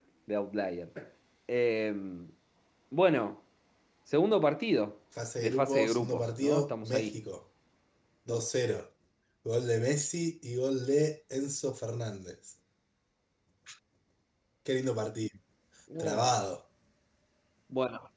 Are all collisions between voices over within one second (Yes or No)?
No